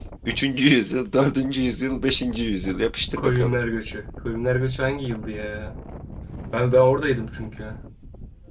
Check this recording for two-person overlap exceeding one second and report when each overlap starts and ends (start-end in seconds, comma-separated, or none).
none